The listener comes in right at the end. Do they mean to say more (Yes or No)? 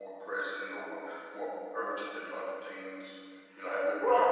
Yes